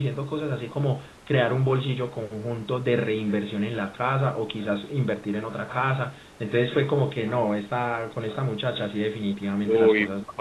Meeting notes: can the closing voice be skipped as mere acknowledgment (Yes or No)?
No